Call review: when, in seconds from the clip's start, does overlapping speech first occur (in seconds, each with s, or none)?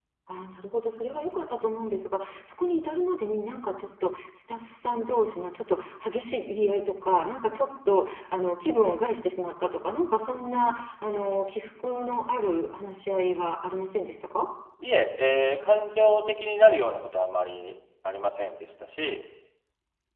none